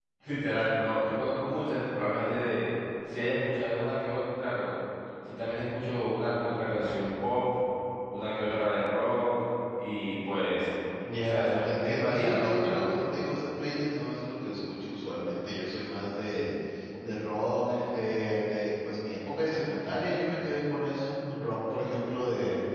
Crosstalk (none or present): present